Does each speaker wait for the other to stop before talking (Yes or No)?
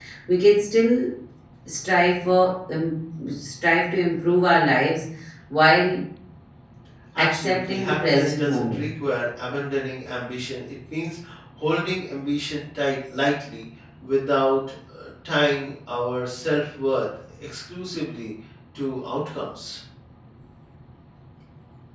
No